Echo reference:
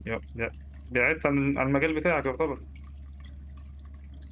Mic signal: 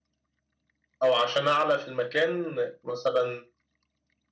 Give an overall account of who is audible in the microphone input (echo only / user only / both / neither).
user only